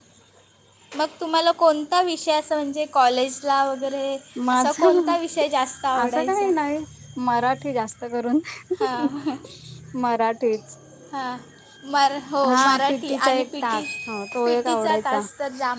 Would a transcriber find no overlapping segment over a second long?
No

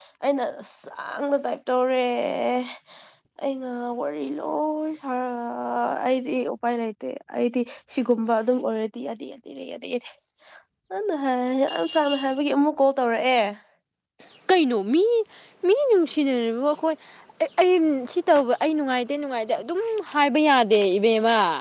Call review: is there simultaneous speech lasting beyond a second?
No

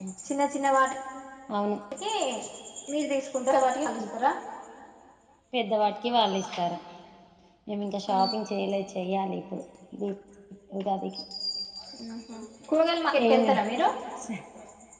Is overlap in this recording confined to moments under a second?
Yes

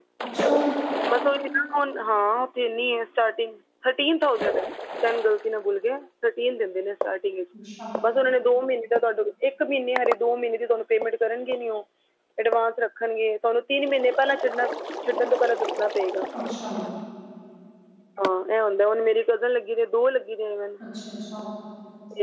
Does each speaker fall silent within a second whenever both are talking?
Yes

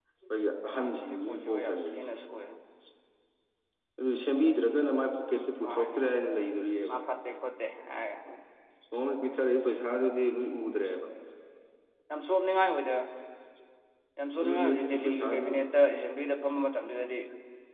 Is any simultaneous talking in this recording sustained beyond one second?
Yes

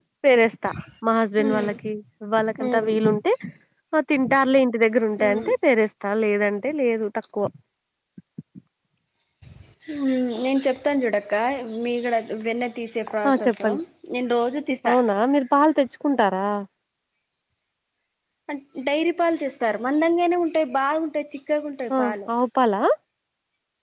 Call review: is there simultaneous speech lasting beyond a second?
No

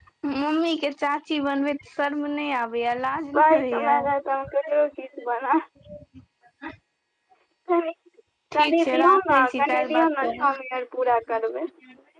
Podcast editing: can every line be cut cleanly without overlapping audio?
No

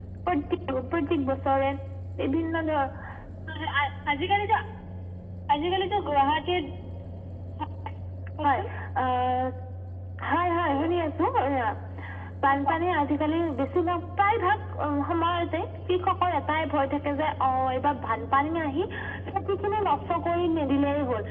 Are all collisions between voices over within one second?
Yes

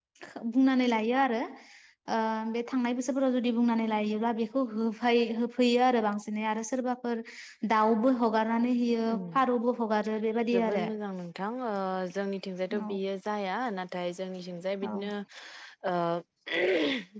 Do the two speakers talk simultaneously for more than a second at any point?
No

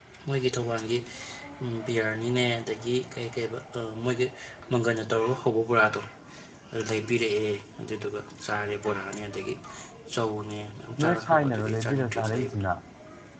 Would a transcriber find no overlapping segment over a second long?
No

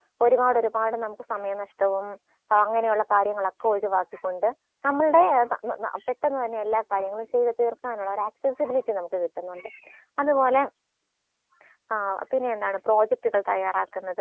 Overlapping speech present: No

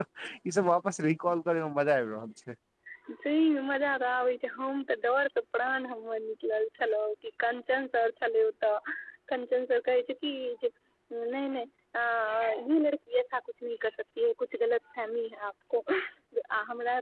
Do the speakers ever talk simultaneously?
No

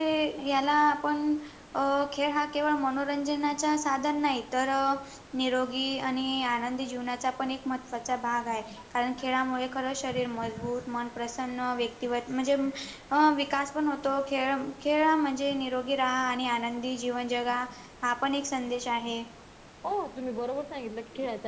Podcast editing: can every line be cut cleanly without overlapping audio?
Yes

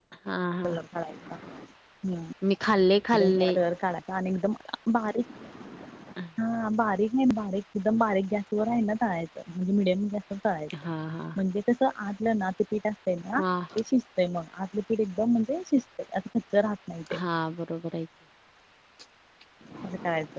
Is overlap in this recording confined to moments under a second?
Yes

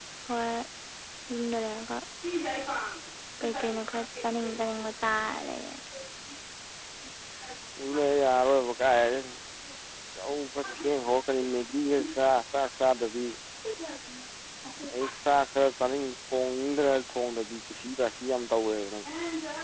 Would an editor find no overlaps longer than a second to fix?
Yes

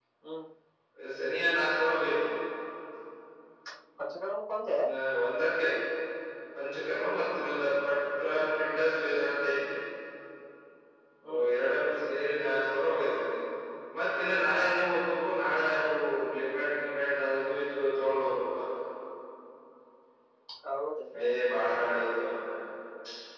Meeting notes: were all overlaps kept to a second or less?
Yes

